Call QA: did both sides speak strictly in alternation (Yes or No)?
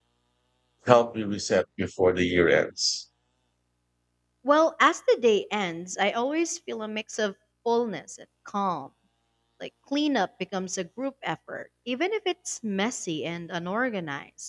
Yes